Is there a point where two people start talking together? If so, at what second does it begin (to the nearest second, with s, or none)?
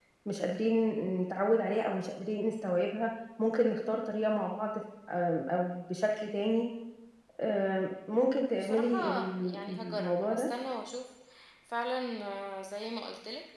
9 s